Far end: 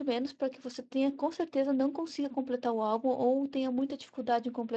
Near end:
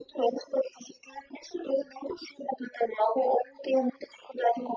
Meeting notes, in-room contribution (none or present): none